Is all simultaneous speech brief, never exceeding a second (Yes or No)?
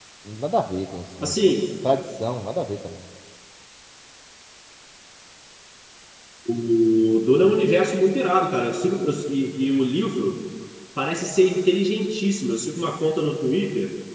Yes